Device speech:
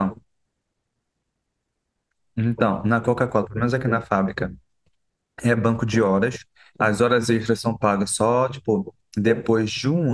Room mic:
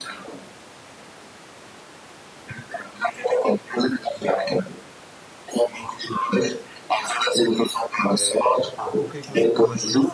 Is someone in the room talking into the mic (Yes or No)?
Yes